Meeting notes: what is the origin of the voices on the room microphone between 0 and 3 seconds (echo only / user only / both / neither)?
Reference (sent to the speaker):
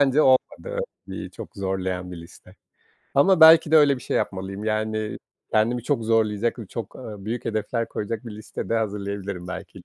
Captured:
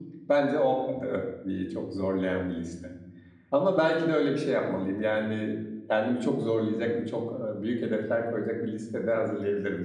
echo only